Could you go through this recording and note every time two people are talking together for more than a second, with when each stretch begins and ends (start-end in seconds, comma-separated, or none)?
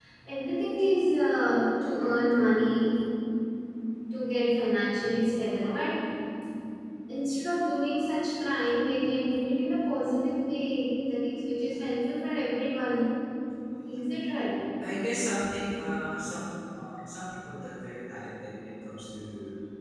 none